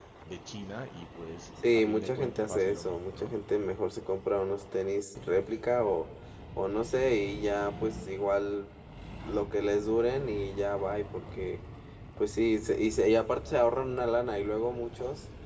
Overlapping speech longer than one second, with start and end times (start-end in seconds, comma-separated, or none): 1.7-3.3